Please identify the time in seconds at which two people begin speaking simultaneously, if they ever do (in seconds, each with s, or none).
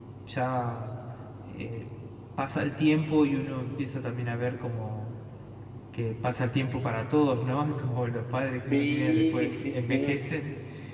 8.7 s